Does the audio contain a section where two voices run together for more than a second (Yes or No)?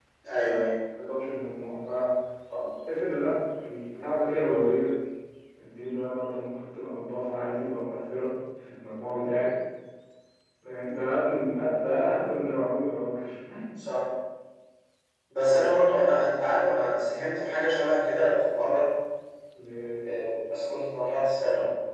No